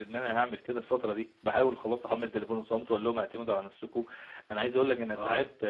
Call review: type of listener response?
listening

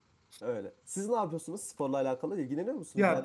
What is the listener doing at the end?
taking over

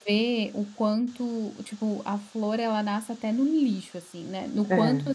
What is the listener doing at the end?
listening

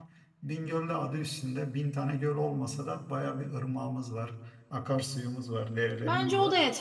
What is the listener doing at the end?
taking over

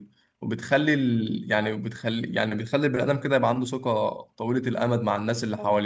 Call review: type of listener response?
taking over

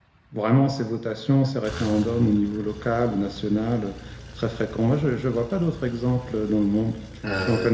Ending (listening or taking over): taking over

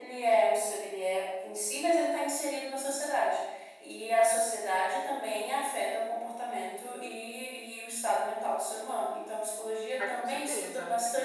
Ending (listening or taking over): listening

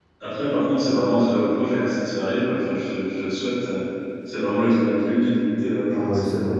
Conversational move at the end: taking over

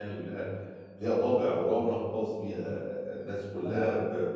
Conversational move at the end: listening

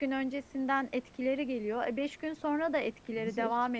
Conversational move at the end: listening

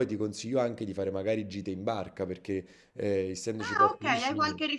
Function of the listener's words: taking over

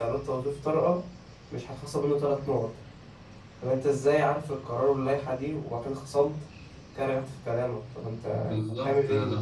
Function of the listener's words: taking over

